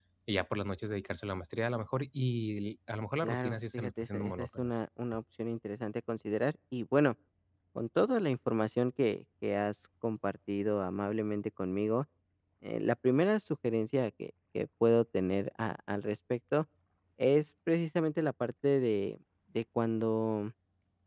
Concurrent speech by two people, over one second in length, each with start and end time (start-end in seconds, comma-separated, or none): 3.2-4.7